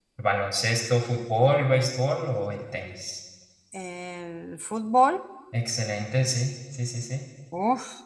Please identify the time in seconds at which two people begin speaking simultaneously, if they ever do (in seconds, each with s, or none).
none